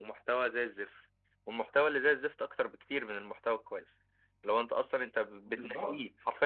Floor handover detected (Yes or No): No